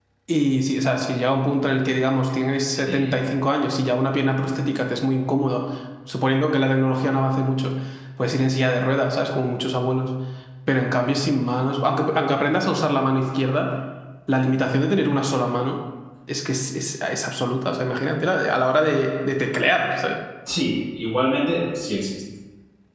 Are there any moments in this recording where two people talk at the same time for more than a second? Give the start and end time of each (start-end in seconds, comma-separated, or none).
none